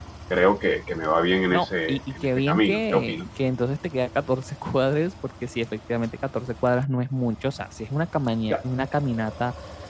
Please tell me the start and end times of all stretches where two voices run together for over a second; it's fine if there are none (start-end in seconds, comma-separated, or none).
1.5-3.2